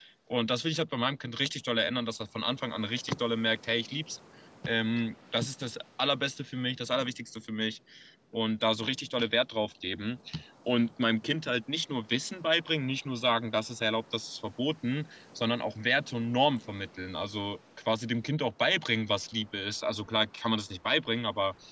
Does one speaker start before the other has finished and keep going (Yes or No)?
No